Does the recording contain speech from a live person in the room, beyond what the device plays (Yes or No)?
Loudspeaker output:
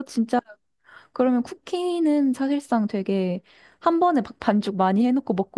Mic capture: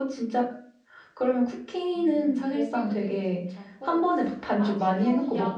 Yes